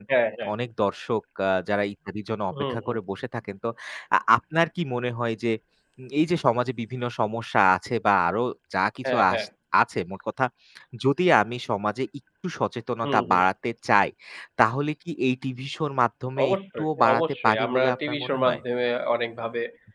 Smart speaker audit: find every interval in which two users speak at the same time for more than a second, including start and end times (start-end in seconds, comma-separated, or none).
16.4-18.6